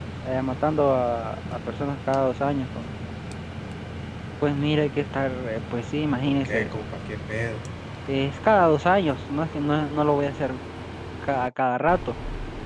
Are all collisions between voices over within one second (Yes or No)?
Yes